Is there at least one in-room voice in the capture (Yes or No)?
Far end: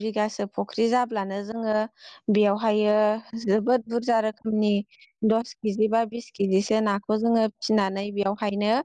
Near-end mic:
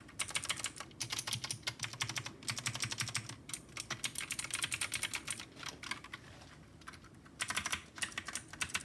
No